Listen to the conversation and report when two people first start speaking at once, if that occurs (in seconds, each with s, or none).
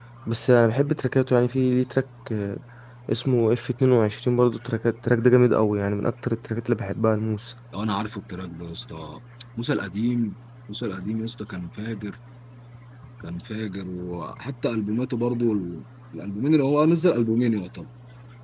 none